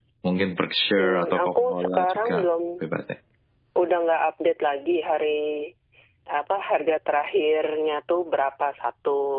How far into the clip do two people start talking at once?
1.0 s

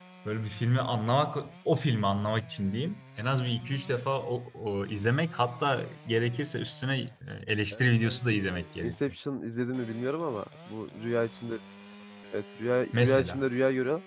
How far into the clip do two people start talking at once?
7.7 s

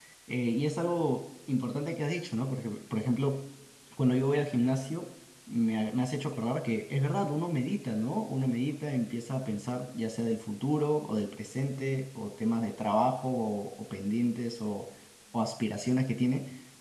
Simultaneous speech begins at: none

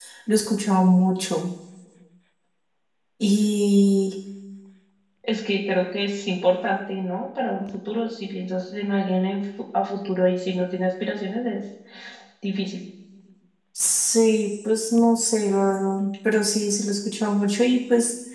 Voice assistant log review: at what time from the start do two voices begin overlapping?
none

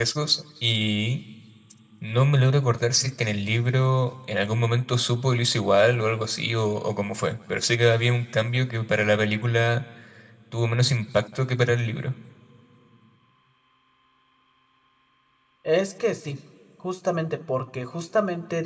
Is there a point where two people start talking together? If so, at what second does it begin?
none

